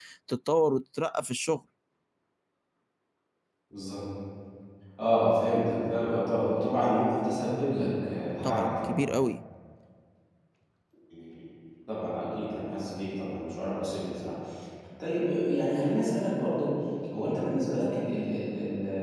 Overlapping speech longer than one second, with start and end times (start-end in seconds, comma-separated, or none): none